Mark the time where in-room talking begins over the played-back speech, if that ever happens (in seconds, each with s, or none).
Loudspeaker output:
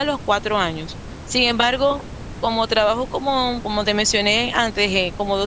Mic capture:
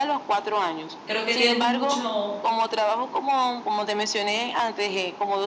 1.0 s